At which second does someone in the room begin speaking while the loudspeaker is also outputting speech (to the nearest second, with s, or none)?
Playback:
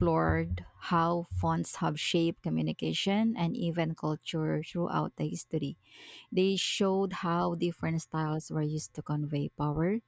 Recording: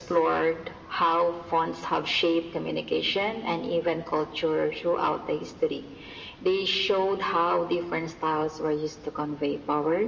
none